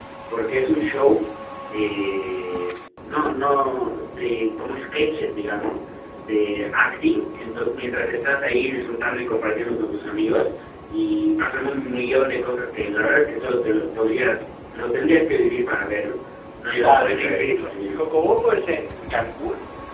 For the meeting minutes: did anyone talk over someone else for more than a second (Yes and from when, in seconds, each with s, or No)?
Yes, from 16.8 s